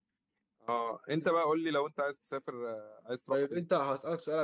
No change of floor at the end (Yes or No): No